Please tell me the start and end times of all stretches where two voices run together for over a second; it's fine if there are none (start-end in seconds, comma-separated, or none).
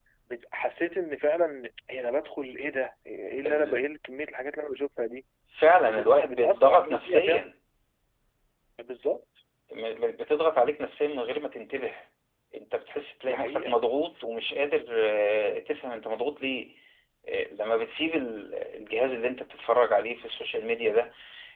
5.8-7.5